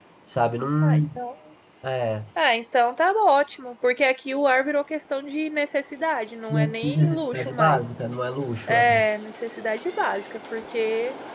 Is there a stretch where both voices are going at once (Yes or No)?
Yes